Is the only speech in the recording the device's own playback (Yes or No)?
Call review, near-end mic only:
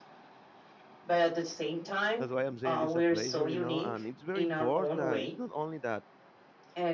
No